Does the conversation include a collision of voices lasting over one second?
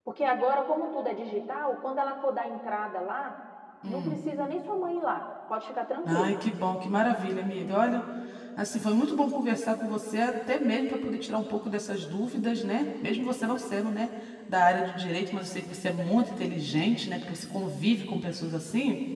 No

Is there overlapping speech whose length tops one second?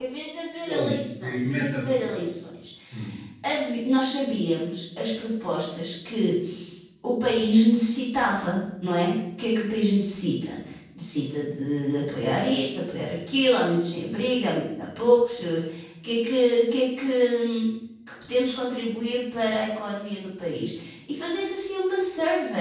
Yes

